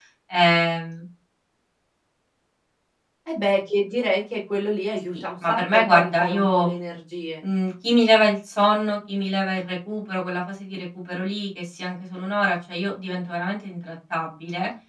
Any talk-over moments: Yes, from 5.1 s

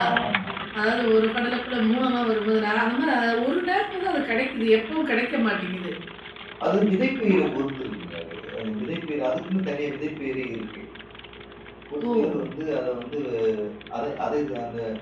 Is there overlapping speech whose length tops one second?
No

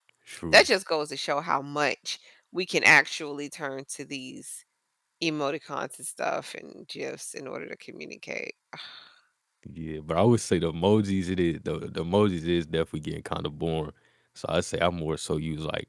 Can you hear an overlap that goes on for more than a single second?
No

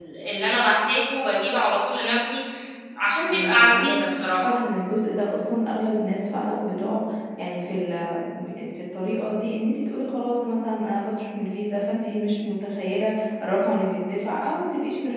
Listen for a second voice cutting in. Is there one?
Yes, from 3.2 s

